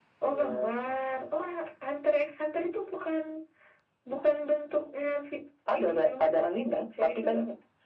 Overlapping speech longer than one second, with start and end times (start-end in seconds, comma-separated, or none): 5.7-7.4